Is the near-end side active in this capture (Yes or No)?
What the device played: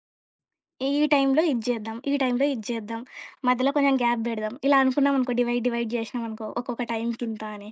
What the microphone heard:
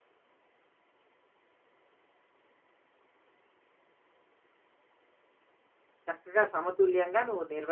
Yes